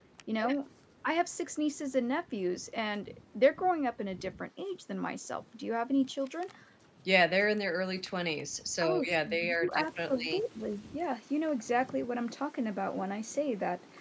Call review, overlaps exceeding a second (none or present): present